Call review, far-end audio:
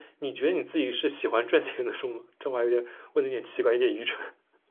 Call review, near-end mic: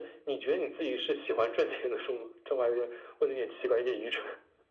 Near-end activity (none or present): none